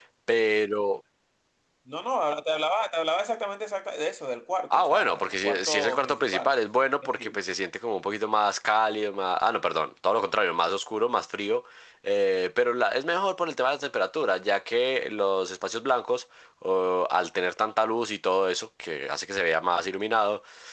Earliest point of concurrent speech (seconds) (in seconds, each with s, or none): 4.8 s